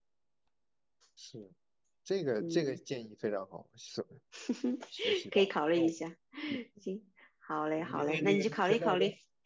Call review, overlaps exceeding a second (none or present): present